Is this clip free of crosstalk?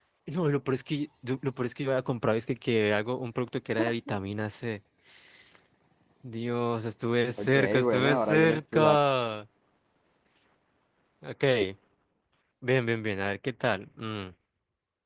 No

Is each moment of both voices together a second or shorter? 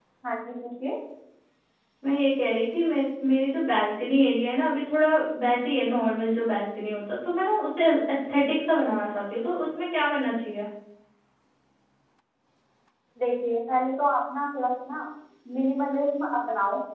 Yes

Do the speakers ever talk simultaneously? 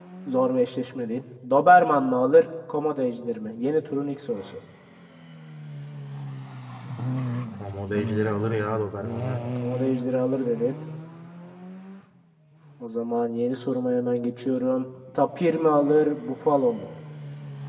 No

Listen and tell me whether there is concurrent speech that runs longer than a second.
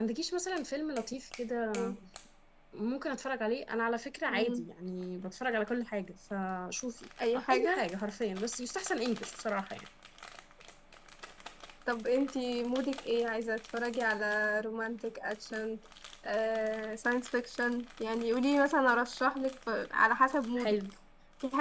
No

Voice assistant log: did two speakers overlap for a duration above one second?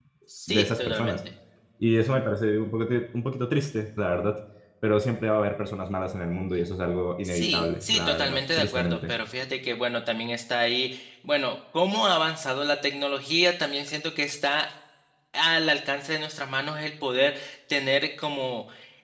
Yes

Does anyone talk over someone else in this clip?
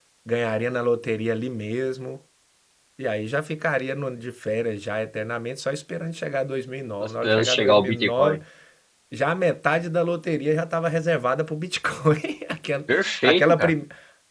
Yes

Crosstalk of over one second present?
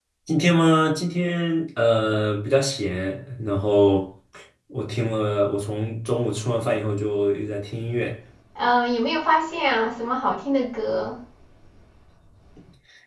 No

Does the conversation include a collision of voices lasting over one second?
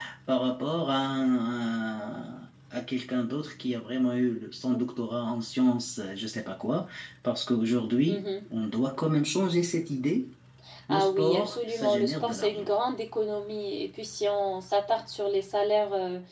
Yes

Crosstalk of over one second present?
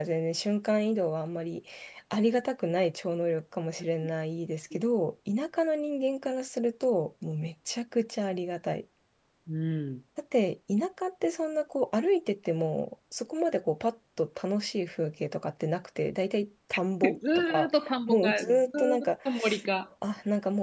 Yes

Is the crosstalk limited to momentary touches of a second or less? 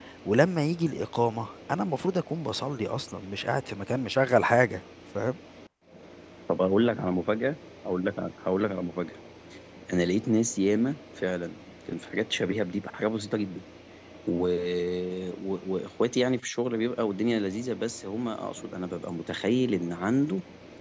Yes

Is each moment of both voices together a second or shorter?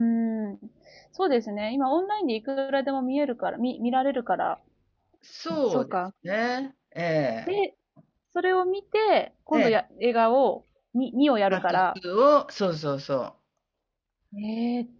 Yes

